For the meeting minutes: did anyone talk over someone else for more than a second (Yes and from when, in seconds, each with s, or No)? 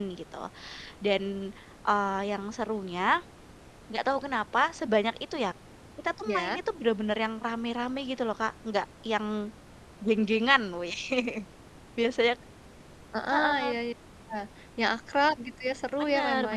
No